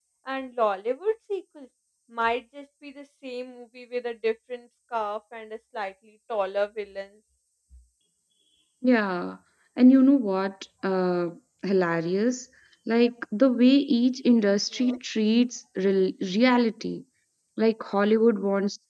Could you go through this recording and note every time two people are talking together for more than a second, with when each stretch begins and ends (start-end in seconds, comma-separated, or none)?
none